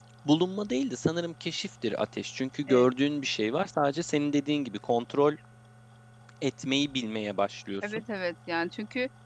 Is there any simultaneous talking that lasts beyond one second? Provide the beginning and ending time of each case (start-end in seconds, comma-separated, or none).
none